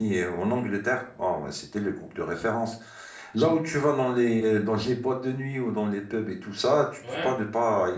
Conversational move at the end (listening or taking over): listening